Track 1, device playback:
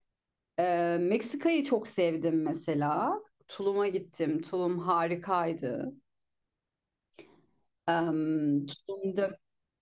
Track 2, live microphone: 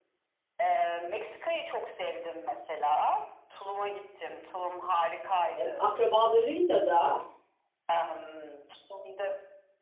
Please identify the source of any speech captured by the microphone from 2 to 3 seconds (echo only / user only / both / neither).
echo only